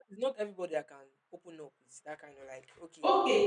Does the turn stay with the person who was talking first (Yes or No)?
No